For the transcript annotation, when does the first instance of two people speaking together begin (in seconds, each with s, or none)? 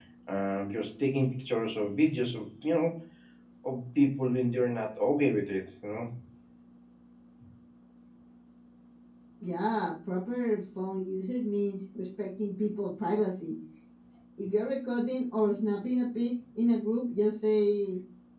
none